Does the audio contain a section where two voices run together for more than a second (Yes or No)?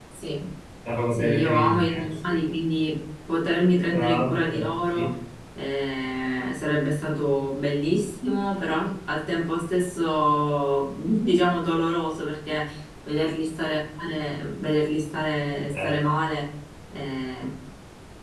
Yes